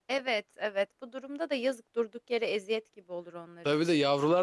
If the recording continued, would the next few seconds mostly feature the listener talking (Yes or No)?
Yes